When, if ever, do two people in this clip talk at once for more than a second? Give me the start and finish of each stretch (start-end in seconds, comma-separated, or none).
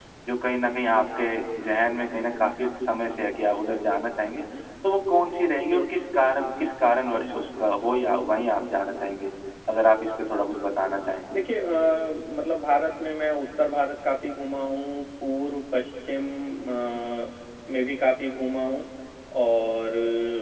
none